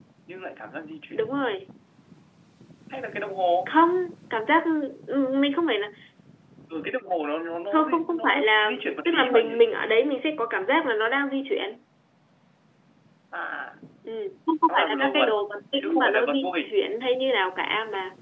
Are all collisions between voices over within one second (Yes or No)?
No